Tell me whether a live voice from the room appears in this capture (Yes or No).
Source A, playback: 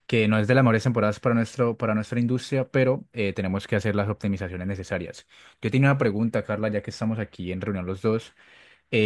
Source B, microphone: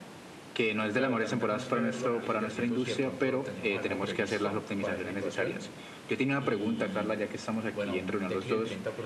Yes